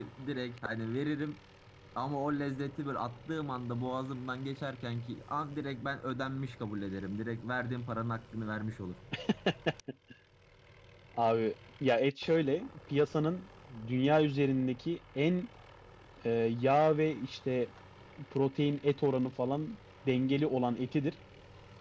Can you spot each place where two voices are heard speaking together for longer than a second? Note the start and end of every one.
none

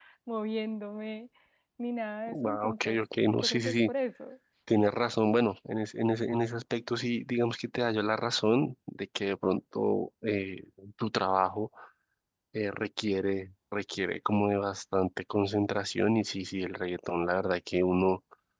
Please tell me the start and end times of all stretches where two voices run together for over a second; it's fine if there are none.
2.5-3.9

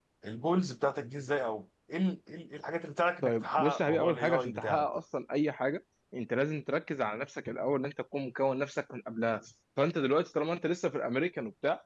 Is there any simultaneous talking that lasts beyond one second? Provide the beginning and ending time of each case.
3.2-5.0

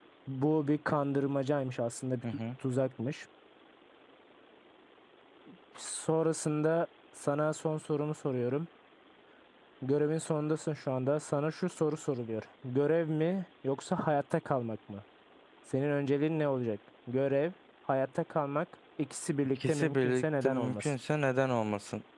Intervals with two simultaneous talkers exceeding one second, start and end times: 19.7-20.9

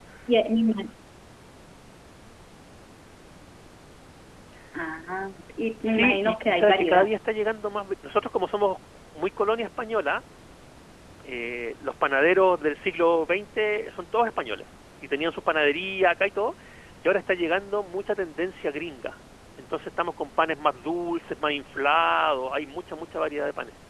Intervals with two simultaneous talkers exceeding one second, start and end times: 5.8-7.1

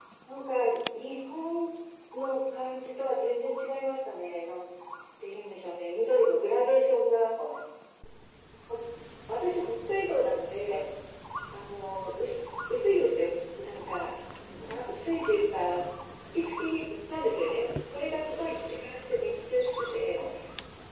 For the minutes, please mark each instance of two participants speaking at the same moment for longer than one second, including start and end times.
none

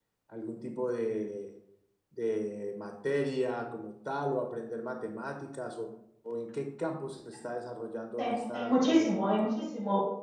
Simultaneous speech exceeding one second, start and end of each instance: 8.2-9.5

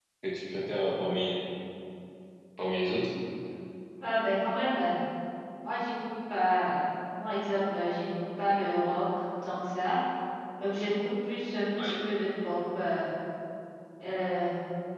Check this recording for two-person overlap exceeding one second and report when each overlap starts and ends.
none

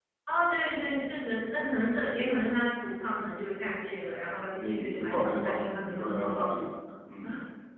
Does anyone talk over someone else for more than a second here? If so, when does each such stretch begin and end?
4.5-6.4

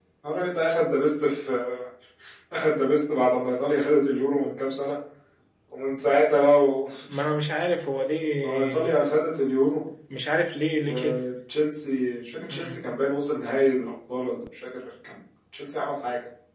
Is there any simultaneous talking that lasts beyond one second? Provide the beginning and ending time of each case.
none

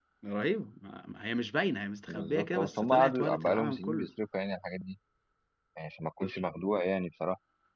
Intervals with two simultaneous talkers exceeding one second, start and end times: 2.1-4.1

